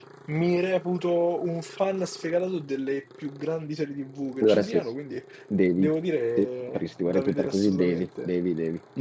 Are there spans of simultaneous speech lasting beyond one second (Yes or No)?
Yes